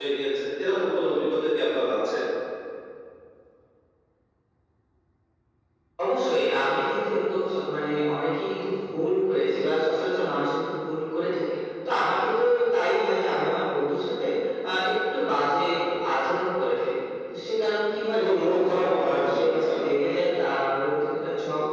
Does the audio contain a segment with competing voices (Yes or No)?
Yes